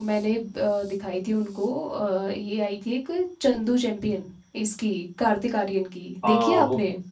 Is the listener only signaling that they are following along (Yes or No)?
No